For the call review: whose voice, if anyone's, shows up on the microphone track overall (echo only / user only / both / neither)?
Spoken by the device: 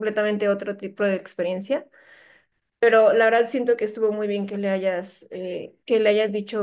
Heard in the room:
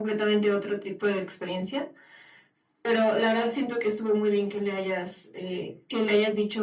echo only